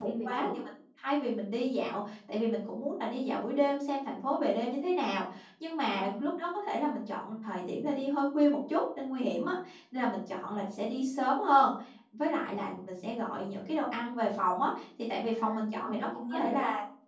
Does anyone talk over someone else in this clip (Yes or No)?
Yes